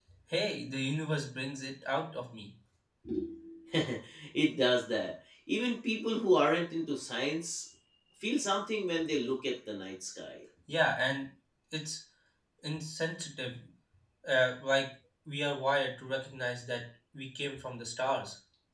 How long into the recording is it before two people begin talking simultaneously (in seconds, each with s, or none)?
none